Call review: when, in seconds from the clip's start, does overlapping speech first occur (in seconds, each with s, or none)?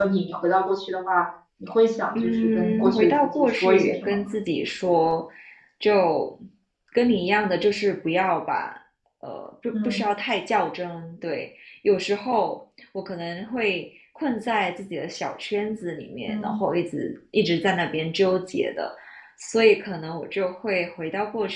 2.1 s